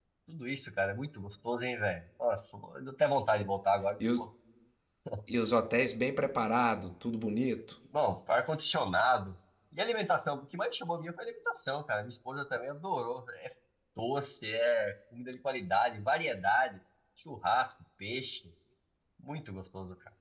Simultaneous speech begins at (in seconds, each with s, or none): none